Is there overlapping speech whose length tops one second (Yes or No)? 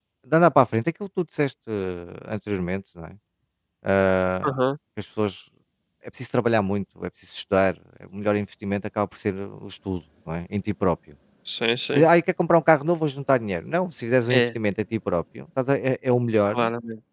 No